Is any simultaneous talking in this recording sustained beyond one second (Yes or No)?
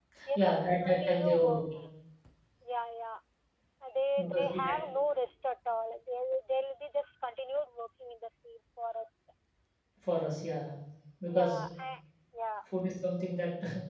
Yes